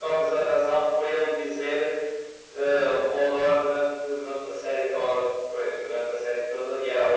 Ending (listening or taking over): taking over